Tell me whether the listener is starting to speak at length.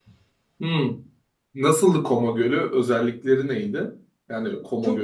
Yes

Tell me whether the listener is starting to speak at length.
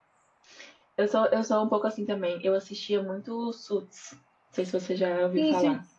Yes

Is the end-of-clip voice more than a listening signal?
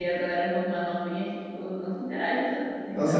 Yes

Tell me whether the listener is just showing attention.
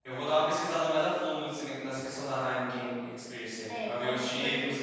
No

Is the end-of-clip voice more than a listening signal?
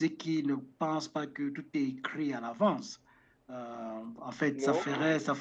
No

